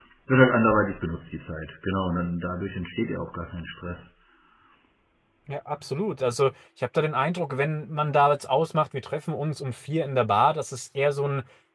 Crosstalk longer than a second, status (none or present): none